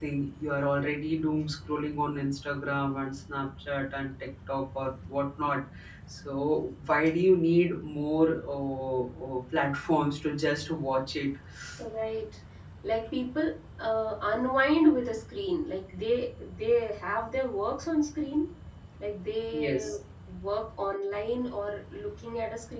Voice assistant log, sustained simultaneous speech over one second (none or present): none